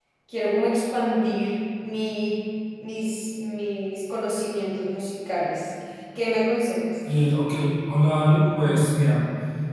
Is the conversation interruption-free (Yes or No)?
Yes